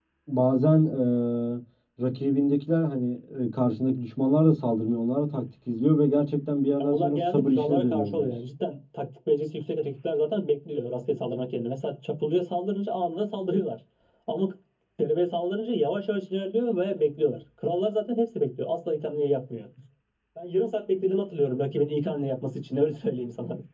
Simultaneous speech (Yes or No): Yes